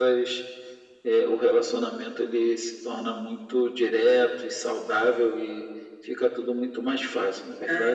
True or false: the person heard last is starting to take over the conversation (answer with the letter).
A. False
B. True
B